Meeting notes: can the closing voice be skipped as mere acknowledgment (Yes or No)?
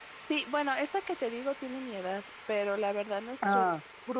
Yes